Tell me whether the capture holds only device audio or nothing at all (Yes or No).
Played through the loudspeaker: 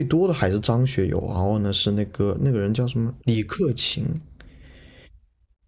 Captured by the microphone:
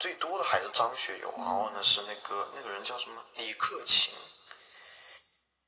No